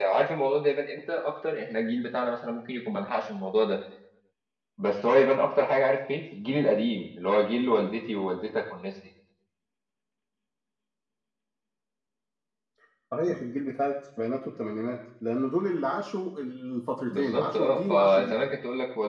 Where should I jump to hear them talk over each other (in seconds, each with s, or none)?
17.1 s